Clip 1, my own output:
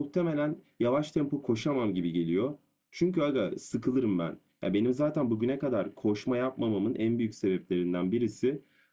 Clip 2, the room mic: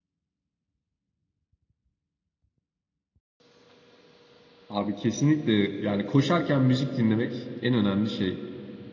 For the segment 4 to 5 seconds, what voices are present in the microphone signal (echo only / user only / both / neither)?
user only